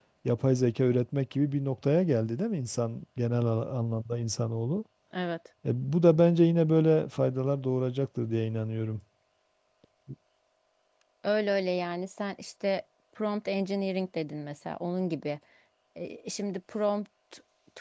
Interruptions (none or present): none